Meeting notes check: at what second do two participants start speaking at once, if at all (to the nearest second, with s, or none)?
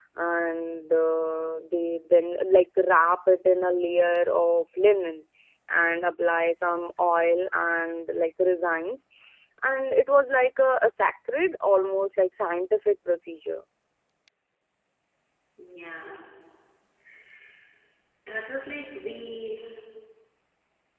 none